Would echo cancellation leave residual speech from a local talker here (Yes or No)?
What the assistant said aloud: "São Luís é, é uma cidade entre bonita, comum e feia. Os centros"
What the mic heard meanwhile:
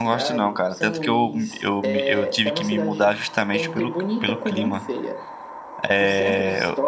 Yes